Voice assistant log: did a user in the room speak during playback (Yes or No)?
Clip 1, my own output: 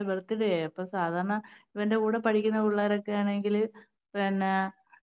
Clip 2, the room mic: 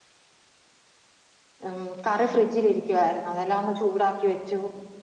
Yes